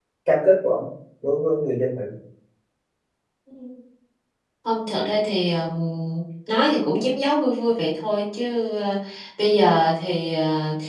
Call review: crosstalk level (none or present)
none